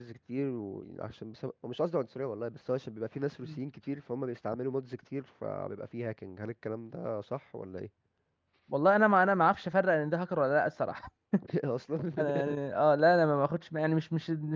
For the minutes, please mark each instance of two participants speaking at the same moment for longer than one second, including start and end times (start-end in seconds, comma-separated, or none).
none